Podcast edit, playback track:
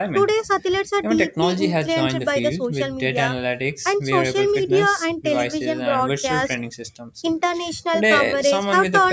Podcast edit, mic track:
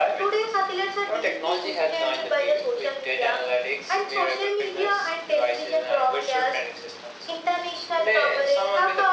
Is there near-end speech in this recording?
No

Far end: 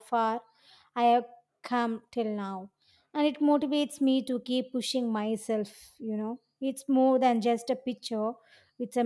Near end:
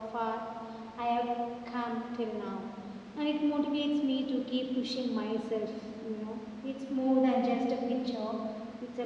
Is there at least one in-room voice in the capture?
No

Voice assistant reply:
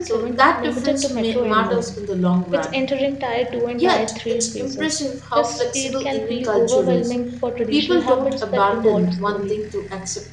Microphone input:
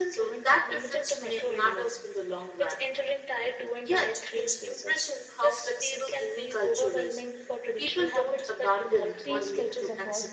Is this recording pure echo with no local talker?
No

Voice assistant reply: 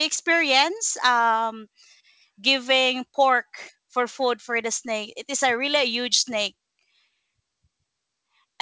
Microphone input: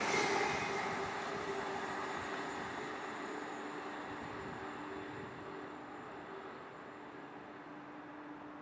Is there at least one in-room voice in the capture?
No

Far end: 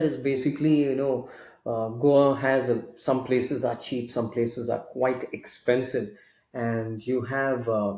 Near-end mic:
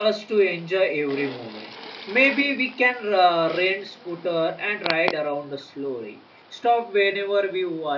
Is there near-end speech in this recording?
Yes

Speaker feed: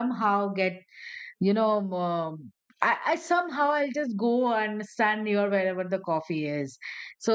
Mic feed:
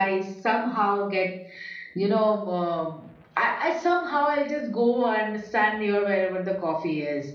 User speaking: No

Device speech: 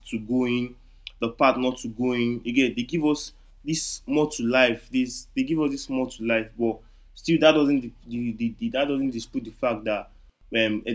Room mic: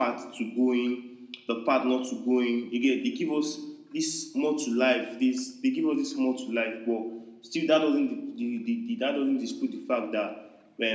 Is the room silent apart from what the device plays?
Yes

